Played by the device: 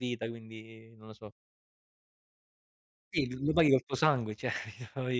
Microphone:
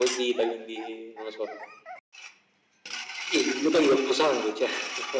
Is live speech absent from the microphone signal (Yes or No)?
Yes